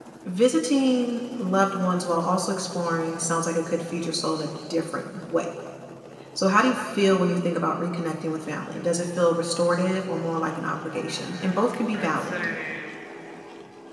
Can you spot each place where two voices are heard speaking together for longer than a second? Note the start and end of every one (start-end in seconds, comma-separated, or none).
10.8-12.4